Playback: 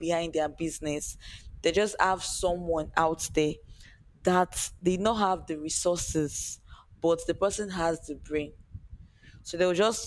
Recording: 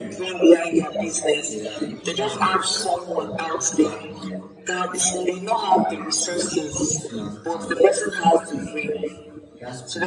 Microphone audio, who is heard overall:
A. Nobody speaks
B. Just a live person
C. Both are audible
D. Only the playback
C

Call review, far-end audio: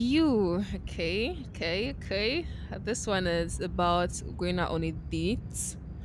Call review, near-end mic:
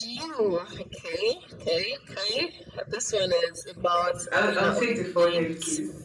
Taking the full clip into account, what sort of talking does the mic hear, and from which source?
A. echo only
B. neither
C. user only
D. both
D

